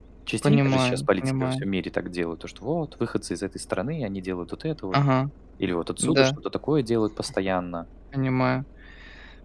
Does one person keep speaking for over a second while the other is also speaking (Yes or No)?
Yes